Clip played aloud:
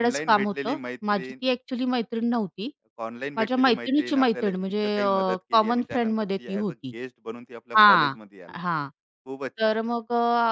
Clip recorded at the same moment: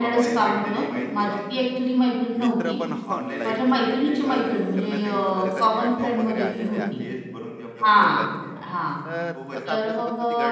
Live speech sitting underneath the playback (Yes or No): Yes